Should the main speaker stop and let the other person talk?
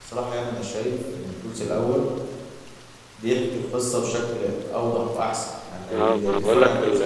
Yes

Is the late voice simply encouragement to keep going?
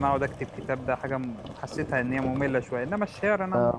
No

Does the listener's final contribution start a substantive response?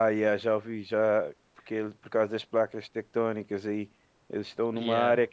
No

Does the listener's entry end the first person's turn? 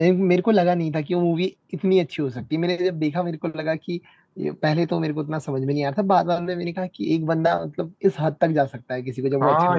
Yes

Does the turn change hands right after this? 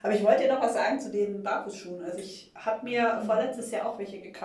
No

